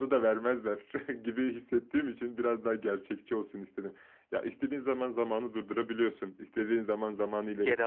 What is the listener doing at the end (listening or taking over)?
listening